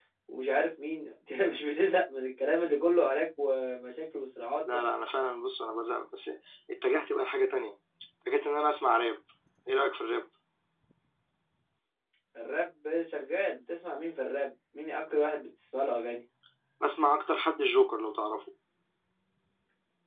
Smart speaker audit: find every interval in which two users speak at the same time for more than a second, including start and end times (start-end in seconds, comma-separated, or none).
none